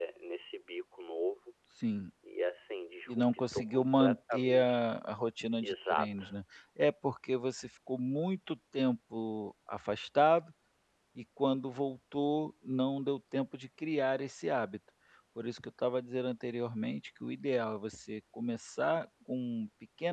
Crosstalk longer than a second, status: present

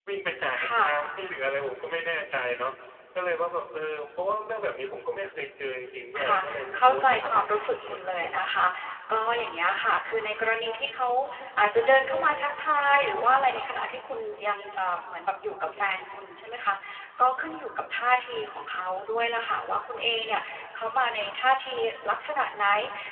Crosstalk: present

